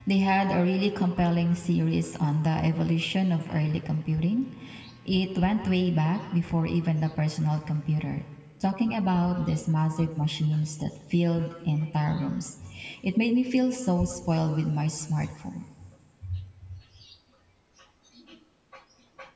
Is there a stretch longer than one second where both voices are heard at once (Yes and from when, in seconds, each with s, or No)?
No